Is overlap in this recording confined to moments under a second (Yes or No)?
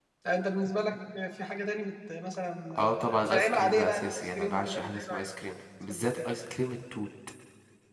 No